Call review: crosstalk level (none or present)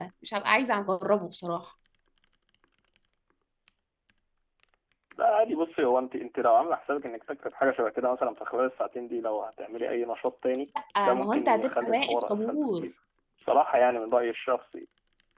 present